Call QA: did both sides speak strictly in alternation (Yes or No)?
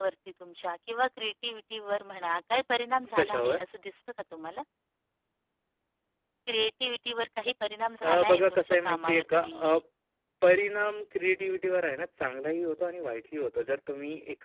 No